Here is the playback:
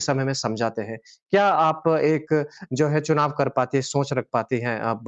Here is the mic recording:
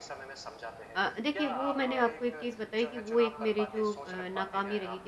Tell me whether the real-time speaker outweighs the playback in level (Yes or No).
Yes